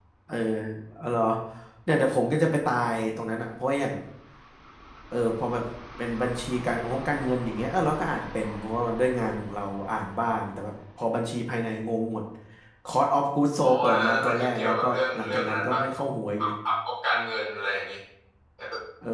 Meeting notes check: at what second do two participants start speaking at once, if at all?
13.6 s

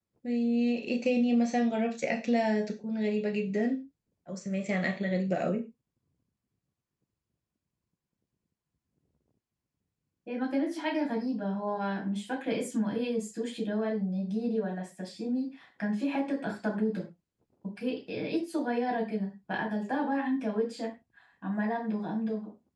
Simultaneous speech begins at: none

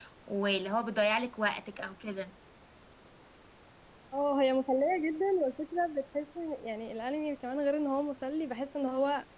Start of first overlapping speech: none

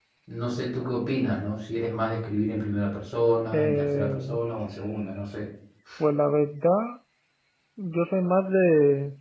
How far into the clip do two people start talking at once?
3.5 s

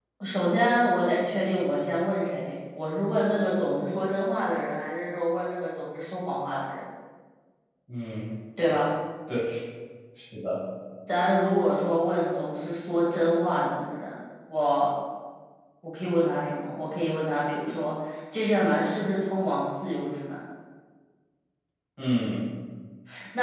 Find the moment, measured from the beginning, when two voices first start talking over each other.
none

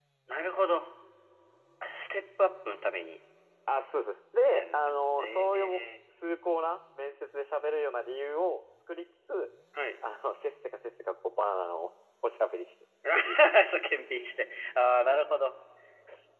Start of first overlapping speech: 4.5 s

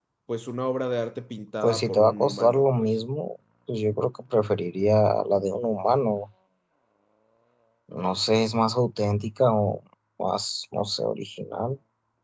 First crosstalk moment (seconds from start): 1.6 s

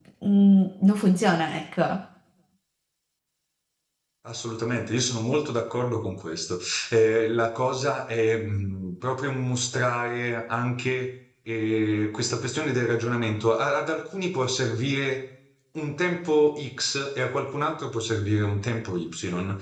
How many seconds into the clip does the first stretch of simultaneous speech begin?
none

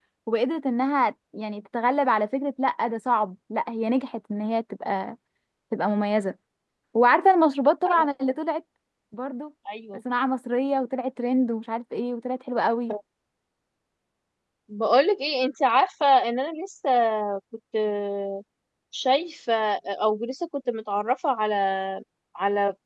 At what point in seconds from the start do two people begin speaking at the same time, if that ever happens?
none

